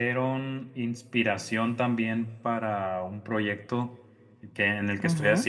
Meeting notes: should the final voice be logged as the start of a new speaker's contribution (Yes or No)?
No